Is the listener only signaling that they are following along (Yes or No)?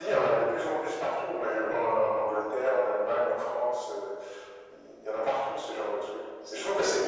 Yes